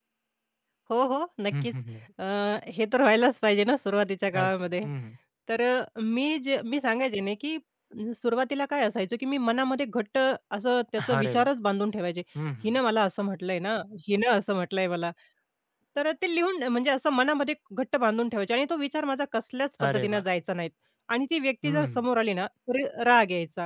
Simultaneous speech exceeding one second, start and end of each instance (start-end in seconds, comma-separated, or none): none